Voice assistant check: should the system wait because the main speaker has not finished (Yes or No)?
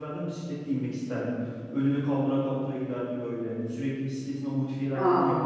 Yes